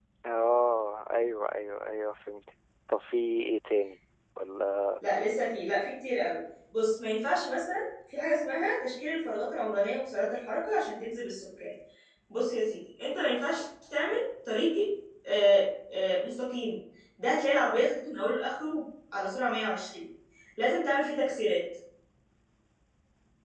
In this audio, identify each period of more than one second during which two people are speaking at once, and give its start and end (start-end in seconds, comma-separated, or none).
none